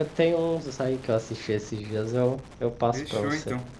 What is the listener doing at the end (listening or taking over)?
taking over